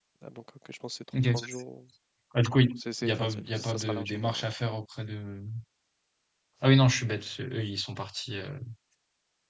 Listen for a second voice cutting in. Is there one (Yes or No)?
Yes